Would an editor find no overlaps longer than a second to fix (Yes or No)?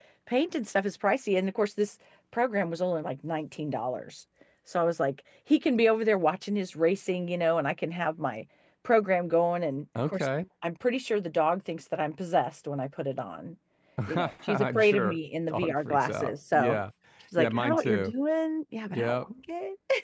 No